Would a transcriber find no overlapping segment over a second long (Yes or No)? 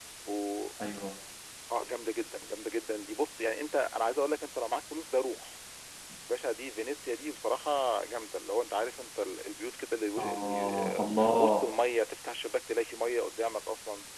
No